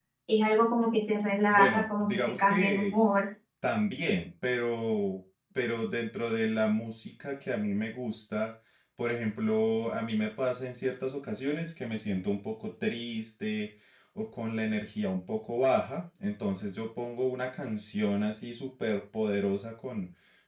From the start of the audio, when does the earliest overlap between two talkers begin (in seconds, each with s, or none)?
1.5 s